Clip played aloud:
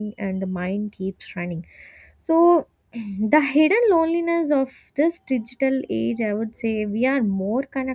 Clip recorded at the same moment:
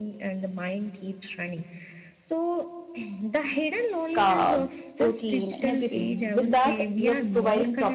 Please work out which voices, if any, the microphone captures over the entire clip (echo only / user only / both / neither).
both